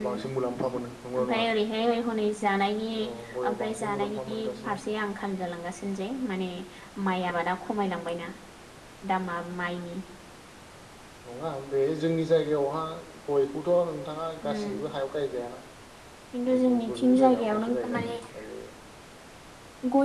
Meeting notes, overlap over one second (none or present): present